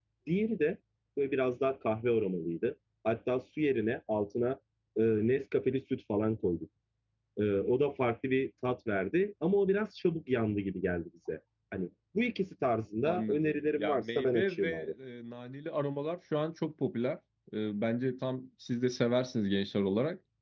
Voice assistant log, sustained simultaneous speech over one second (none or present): present